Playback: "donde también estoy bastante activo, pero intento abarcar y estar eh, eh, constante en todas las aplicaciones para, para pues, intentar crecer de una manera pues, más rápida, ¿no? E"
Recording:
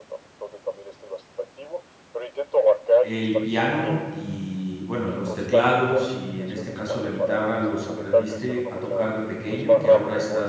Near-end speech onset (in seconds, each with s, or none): 3.0 s